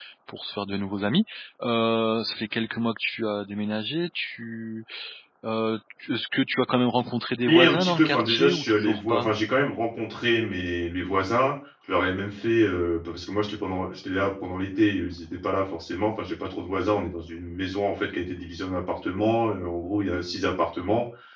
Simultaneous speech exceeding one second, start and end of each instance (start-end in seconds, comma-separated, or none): 7.5-9.3